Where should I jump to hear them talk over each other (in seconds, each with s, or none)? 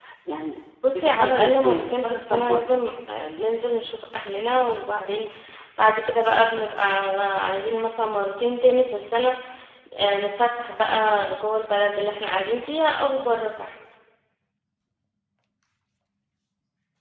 0.9 s